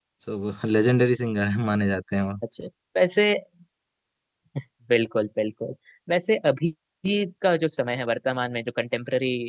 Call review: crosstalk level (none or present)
none